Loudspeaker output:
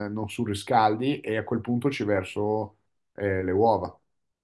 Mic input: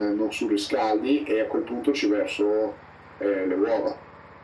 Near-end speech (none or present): none